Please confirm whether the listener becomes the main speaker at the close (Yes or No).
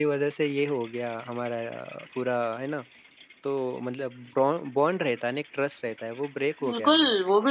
Yes